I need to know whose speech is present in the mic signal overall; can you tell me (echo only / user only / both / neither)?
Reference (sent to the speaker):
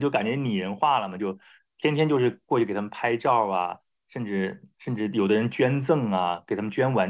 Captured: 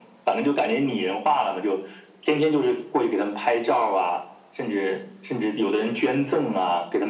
echo only